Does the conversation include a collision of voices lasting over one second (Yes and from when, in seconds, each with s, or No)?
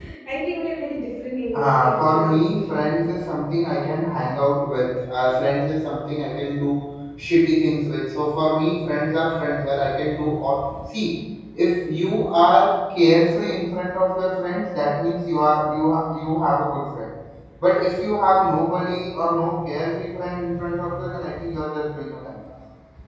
Yes, from 1.5 s